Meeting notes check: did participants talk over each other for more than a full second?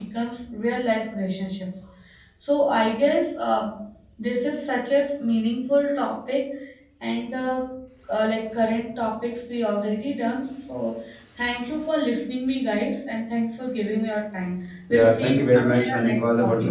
Yes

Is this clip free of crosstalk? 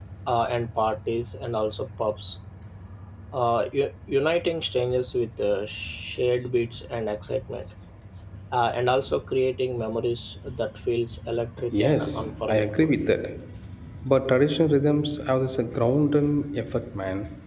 No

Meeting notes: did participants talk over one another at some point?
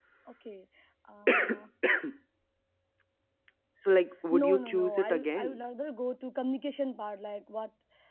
Yes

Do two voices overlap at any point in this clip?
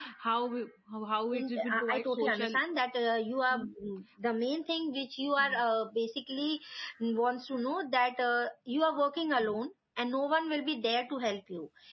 Yes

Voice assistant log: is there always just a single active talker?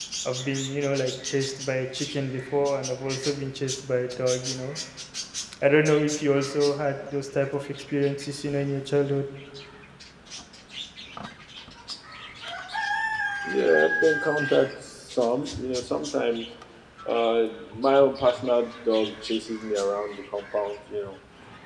Yes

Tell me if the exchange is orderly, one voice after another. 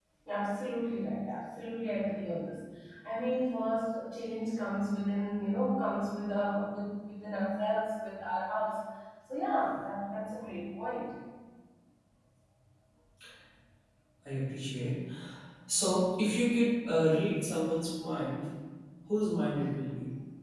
Yes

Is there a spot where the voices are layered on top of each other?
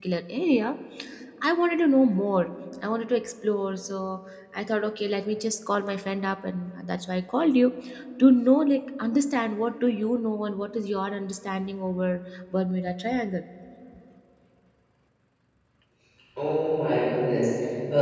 No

